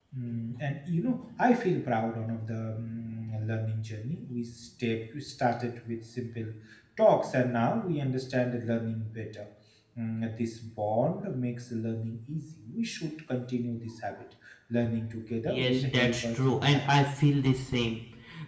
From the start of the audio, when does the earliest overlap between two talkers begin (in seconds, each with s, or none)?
15.5 s